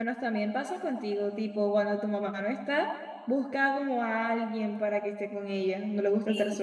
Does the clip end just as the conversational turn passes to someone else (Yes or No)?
Yes